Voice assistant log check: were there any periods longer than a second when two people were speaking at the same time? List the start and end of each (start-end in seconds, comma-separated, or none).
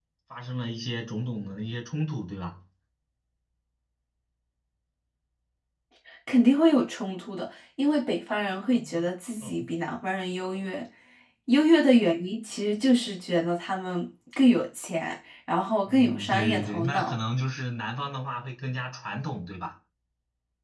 15.9-17.1